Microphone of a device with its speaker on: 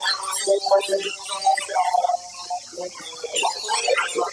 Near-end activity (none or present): none